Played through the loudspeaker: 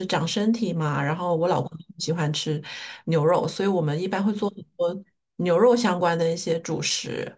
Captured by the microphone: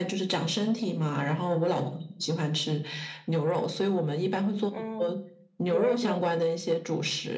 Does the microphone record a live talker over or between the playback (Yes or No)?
Yes